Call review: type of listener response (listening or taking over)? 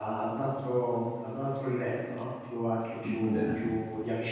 listening